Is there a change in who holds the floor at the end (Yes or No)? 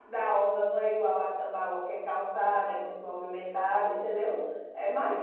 No